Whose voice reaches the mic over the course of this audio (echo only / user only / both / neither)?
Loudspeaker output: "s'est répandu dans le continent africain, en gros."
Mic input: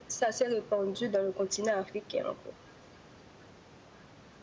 echo only